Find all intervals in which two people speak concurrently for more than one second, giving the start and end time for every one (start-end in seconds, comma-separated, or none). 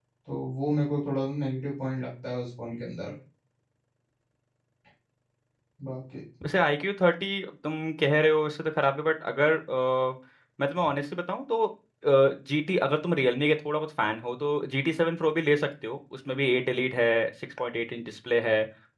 none